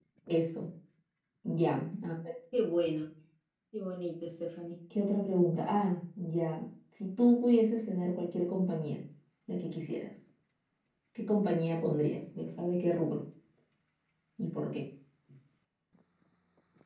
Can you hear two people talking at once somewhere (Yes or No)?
No